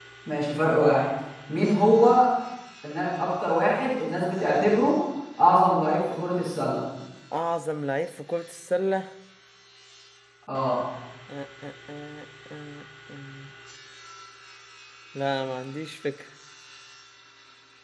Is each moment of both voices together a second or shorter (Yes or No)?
Yes